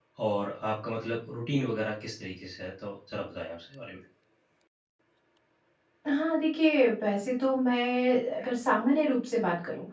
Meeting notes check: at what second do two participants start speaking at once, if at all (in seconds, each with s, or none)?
none